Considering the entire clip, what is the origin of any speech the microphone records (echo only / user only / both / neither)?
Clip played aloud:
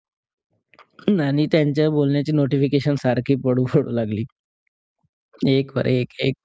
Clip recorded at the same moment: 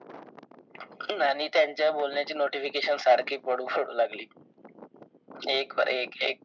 echo only